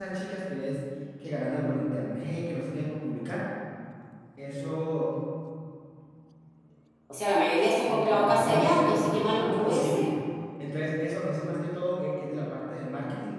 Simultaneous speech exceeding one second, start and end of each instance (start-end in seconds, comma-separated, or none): 7.9-10.1